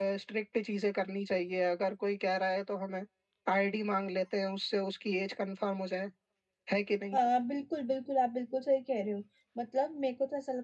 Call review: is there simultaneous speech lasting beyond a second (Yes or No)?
No